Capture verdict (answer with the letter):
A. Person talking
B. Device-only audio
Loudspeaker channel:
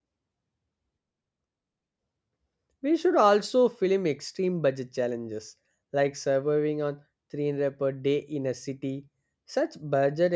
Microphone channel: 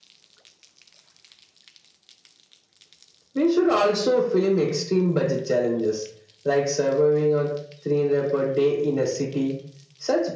B